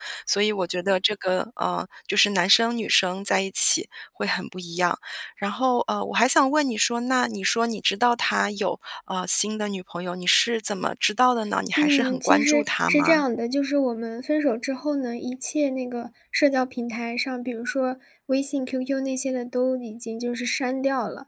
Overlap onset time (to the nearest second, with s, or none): 12 s